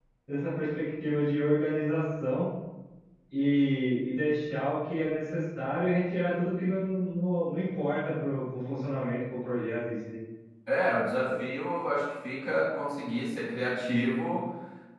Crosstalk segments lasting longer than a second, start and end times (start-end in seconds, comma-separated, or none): none